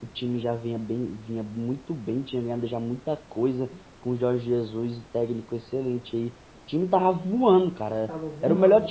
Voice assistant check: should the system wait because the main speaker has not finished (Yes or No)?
Yes